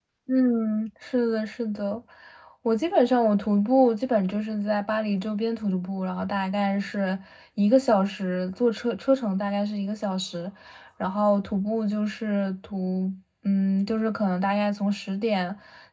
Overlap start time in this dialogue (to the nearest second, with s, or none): none